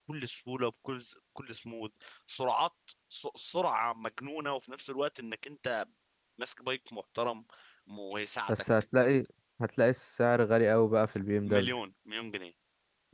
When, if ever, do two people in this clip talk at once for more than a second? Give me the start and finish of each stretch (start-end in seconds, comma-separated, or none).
none